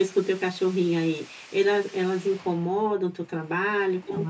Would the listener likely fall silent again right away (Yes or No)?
No